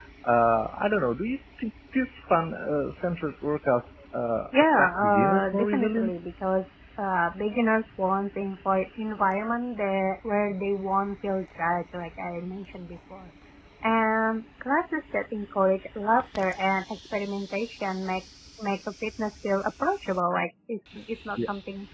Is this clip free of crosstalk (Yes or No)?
No